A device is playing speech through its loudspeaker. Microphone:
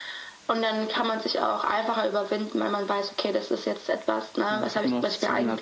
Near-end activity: present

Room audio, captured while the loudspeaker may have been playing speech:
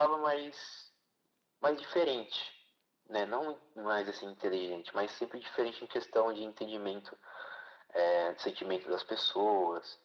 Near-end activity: none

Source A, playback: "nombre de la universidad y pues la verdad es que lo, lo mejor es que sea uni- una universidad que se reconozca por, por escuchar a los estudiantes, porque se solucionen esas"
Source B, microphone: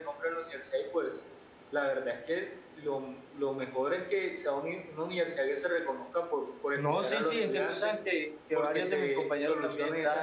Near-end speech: present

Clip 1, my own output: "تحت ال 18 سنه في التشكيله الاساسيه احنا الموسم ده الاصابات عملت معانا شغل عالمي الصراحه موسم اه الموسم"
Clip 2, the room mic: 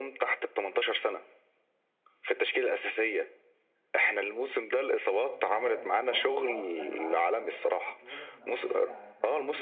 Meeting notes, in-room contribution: present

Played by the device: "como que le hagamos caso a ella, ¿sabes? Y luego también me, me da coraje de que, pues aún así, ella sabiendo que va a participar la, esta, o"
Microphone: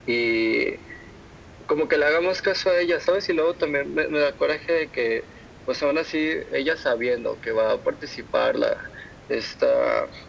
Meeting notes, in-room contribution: none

